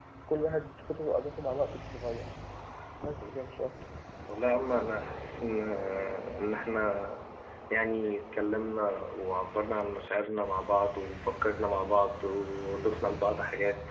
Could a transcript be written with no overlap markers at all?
Yes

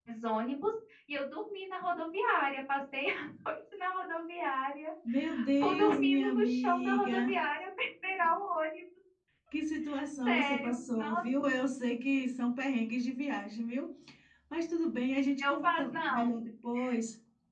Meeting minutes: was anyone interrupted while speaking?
Yes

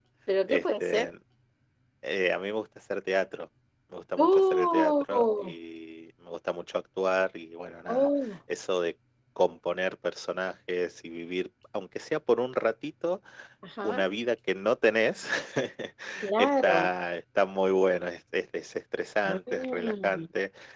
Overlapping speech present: Yes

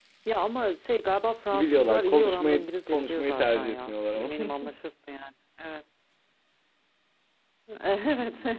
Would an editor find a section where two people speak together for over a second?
Yes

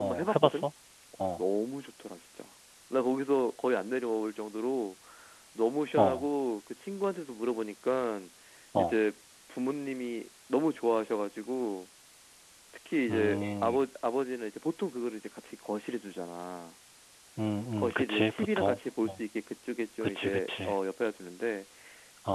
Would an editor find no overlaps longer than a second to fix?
No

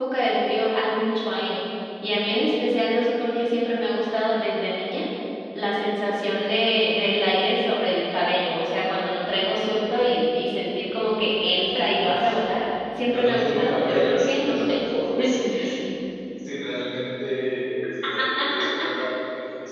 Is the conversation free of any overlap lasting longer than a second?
No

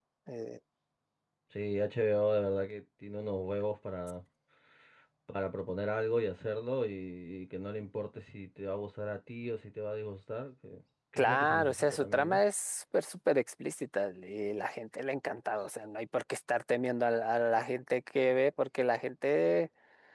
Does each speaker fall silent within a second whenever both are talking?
No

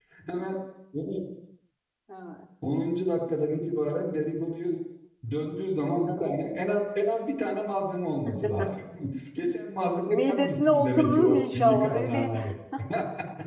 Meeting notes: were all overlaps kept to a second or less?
No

